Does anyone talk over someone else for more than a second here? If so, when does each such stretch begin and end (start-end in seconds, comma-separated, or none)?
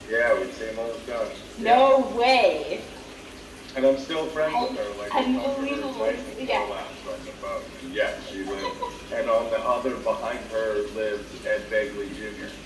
5.2-6.6